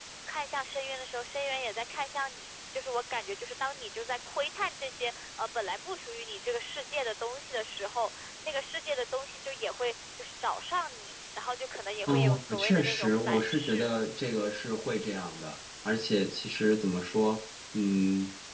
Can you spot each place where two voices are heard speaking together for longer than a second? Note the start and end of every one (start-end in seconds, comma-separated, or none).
12.1-13.9